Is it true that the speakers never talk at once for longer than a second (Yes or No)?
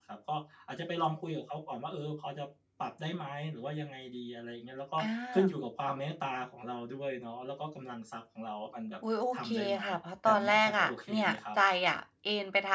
No